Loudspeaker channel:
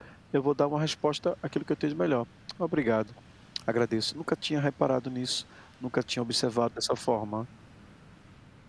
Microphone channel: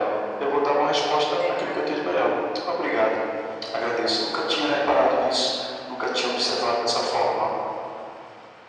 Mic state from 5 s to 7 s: echo only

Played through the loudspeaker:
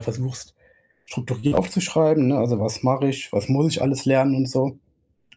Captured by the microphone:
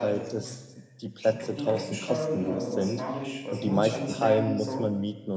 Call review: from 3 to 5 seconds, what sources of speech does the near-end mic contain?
both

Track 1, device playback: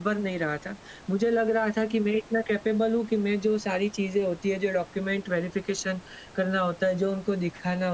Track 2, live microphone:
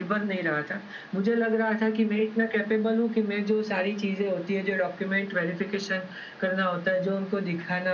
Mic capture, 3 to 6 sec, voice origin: echo only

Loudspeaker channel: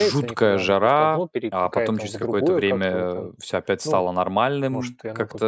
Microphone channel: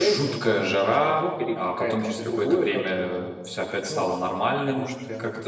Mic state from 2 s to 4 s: echo only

